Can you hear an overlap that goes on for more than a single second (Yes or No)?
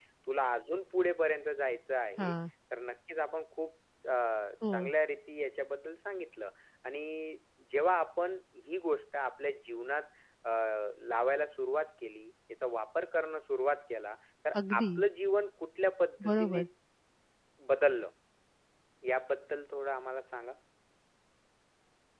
No